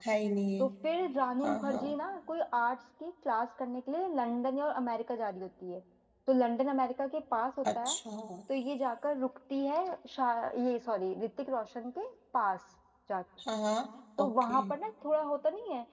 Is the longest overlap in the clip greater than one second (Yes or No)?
No